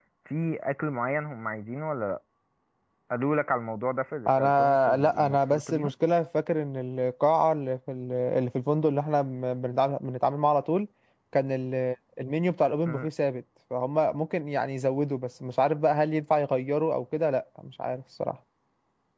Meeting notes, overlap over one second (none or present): present